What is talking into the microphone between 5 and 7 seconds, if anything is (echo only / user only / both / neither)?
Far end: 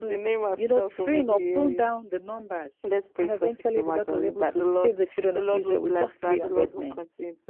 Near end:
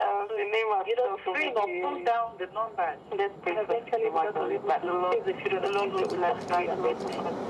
echo only